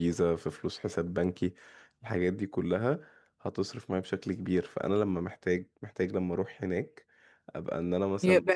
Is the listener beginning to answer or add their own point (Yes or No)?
Yes